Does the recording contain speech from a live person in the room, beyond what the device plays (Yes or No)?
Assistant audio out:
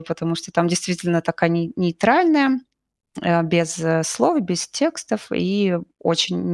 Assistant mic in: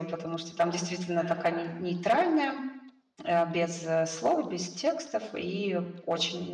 Yes